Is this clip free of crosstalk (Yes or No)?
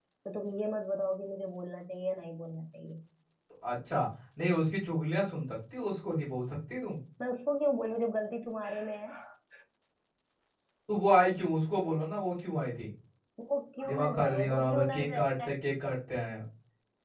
No